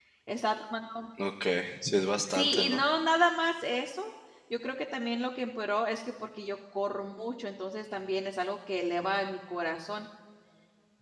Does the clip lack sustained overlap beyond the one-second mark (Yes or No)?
Yes